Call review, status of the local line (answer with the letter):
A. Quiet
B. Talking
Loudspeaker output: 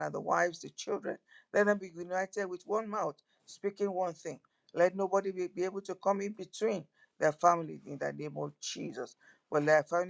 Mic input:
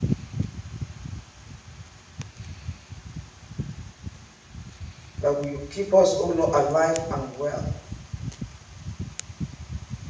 B